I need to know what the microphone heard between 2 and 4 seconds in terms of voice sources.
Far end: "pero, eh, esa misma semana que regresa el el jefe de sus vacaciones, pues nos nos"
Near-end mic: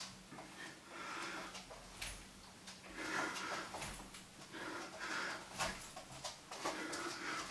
neither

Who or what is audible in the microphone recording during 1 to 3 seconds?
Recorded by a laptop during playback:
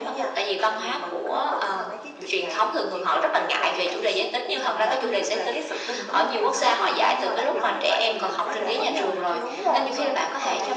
echo only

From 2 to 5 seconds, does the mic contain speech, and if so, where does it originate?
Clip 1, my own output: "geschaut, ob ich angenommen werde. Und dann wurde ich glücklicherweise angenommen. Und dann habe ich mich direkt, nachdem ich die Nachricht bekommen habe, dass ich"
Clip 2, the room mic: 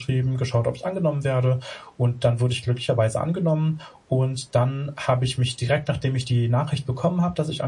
echo only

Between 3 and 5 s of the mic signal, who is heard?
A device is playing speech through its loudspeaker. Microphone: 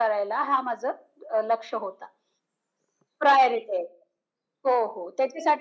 echo only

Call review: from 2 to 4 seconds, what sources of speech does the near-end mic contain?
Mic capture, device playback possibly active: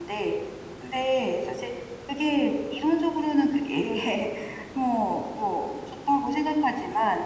user only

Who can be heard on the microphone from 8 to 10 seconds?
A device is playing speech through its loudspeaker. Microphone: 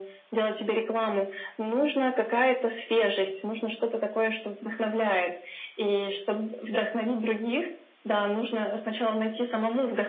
echo only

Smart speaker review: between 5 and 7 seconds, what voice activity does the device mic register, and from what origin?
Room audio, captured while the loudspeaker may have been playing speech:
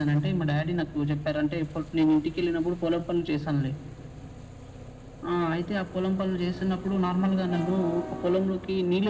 echo only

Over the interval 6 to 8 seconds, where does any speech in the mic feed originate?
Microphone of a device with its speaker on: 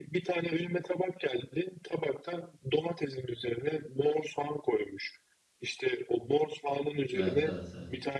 both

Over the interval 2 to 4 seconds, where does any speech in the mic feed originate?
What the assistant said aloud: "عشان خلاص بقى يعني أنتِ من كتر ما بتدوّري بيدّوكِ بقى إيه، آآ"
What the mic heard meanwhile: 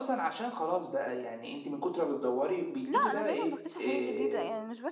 both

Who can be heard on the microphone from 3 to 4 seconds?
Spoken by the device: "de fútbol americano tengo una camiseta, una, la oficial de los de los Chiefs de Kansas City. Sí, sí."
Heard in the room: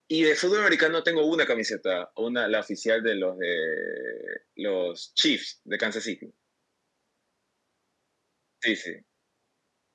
echo only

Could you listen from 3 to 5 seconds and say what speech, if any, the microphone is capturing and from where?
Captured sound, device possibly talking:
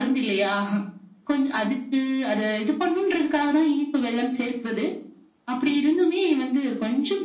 echo only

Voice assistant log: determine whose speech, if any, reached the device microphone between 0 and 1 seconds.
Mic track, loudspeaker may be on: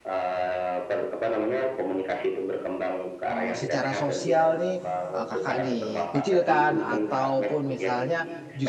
echo only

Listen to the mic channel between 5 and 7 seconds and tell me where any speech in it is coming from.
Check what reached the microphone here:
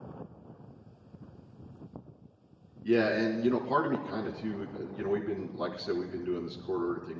user only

